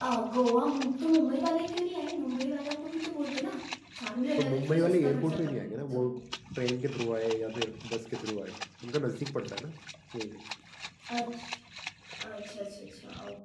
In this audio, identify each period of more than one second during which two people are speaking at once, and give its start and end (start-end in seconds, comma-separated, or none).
4.4-6.0